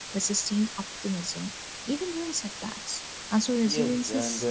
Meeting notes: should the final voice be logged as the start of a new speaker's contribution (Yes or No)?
Yes